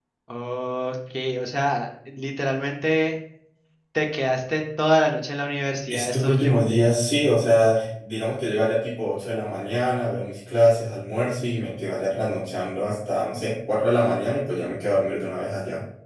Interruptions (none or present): present